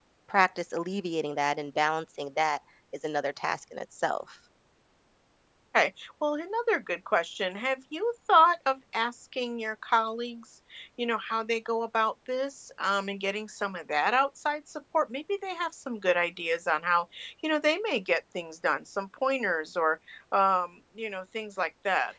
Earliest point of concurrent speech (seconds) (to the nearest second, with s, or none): none